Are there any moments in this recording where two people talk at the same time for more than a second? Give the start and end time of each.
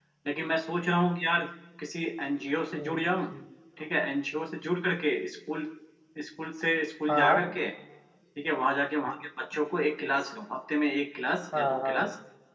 none

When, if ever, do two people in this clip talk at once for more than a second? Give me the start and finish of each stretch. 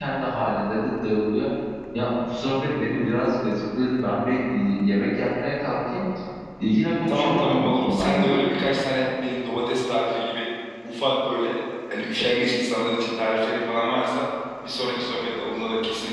7.1-8.5

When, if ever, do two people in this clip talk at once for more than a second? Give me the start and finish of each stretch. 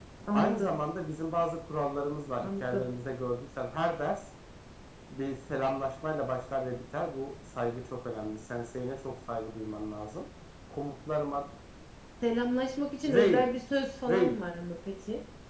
none

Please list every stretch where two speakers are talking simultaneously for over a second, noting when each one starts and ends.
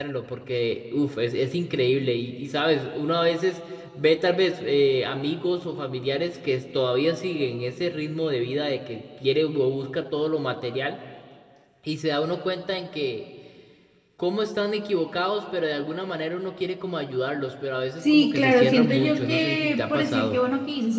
18.0-20.4

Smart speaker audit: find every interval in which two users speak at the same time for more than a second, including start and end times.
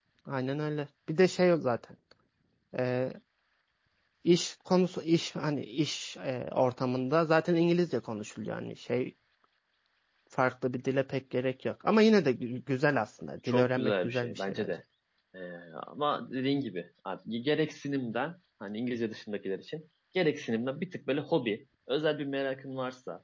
13.5-14.7

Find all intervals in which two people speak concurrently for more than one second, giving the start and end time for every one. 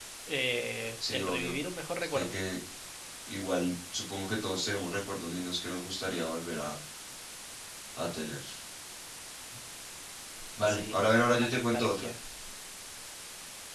10.6-12.1

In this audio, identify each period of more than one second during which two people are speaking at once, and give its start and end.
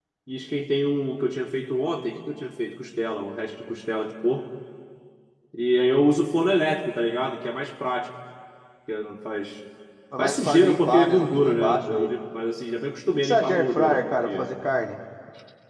10.2-12.1, 13.1-14.5

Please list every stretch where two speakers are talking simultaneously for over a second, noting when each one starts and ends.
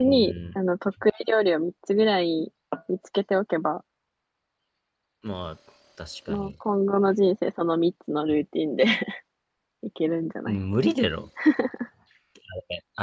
none

